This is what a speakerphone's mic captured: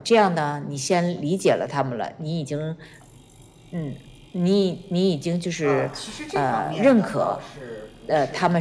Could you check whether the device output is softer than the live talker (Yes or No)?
No